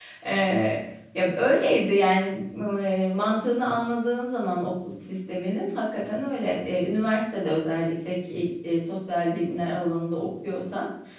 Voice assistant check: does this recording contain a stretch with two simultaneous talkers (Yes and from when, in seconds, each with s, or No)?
No